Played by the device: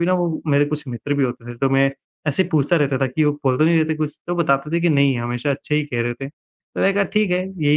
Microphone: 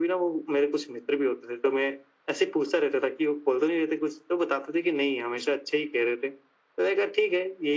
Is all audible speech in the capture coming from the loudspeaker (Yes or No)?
Yes